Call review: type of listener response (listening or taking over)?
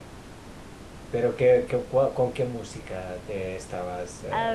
taking over